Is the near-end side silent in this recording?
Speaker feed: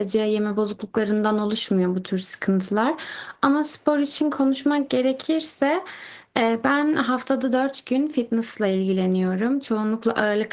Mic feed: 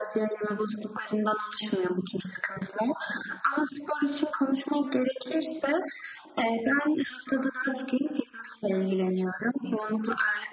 Yes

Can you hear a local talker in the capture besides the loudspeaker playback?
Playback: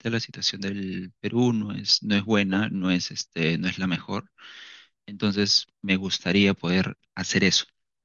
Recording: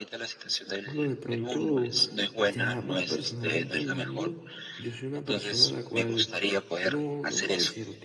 Yes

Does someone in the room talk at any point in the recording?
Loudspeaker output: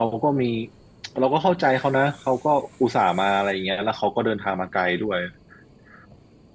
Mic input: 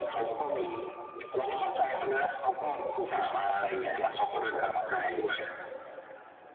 No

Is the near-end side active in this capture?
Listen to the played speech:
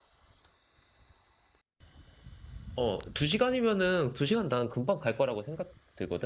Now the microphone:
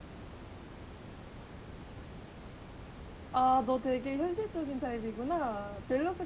Yes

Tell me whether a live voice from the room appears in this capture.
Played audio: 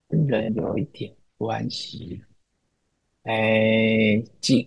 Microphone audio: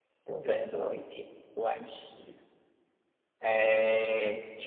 No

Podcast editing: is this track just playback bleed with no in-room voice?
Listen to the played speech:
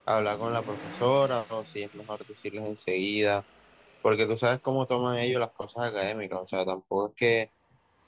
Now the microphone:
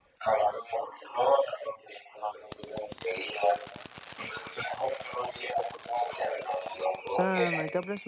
No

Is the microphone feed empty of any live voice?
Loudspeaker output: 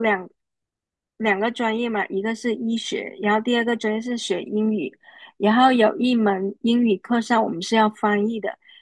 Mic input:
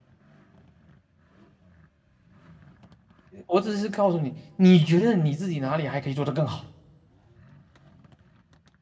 No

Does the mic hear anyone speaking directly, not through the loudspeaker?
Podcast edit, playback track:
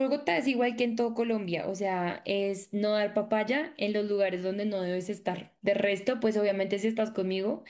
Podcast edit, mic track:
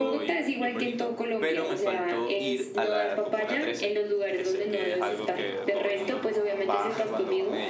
Yes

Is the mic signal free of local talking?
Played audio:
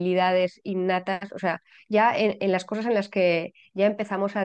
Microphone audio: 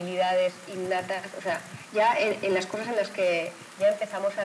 Yes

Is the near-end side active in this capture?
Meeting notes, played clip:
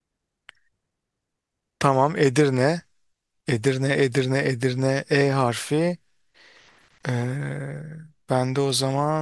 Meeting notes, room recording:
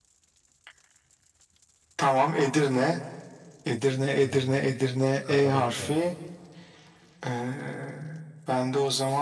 Yes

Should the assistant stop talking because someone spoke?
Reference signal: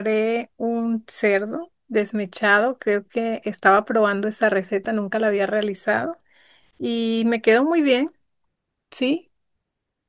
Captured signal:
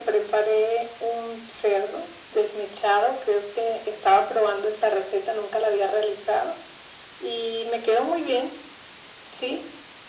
No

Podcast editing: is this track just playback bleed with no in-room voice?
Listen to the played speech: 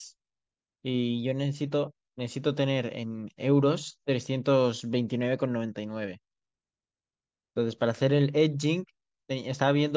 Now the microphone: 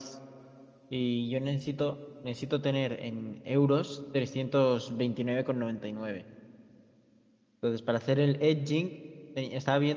Yes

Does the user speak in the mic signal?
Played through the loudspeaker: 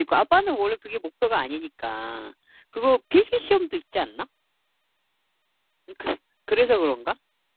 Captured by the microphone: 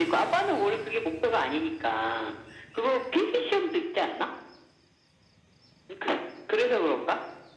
No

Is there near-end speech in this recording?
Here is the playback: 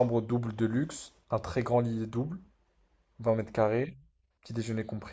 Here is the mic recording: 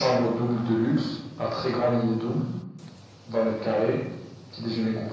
No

